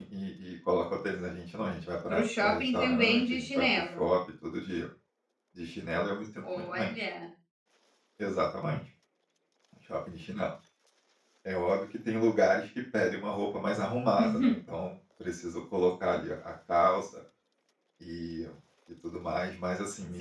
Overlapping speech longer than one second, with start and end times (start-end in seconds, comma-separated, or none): 2.1-4.0